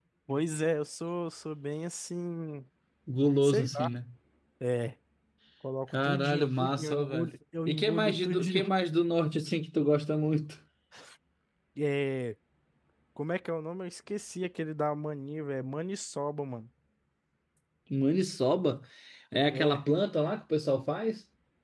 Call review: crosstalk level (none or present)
present